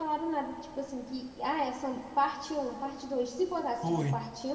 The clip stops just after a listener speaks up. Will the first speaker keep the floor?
Yes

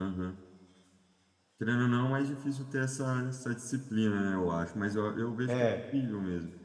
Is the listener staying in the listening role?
Yes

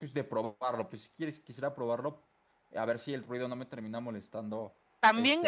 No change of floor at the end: No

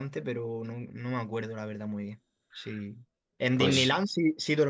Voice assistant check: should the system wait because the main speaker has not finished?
Yes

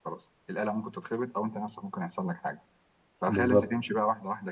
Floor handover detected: No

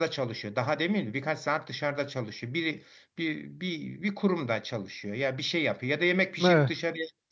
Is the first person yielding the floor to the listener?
No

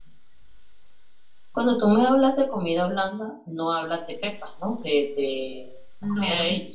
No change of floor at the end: No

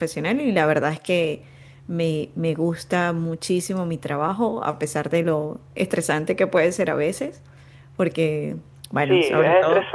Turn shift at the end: Yes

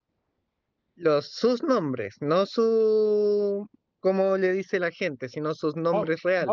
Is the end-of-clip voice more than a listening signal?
Yes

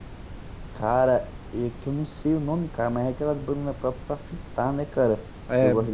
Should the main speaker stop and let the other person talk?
No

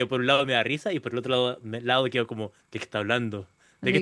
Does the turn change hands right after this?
Yes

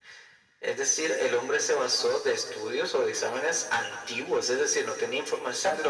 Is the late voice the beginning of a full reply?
No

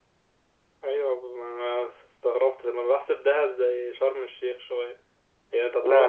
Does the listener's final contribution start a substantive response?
No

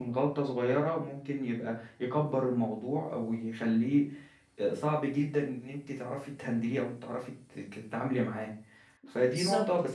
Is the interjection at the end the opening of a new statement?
No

